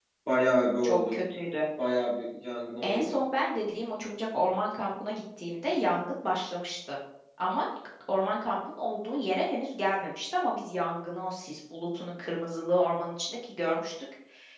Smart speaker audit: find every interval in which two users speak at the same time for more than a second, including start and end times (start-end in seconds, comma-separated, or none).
none